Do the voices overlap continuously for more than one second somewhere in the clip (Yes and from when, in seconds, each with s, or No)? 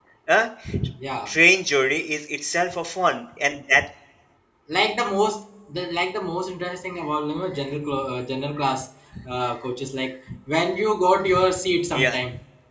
No